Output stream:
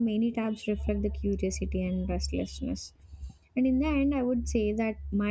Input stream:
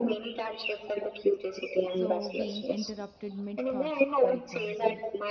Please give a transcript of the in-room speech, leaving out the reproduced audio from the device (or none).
So being interrupted mid thought, for example